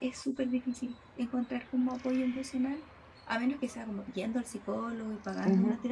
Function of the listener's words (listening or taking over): taking over